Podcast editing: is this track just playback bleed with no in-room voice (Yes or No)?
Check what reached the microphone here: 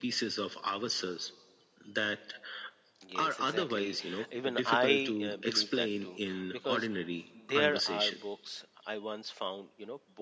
No